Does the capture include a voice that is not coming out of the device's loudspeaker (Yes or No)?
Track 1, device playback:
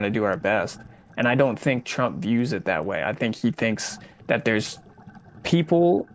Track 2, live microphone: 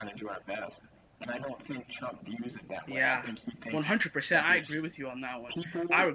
Yes